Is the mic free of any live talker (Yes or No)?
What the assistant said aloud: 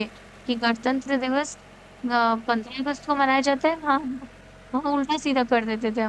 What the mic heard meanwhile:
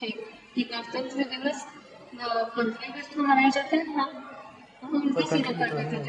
No